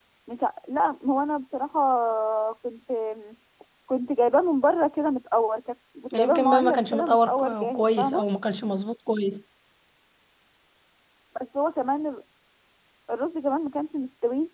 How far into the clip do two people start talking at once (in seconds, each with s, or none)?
6.1 s